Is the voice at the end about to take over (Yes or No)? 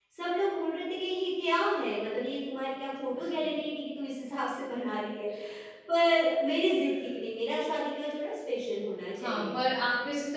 Yes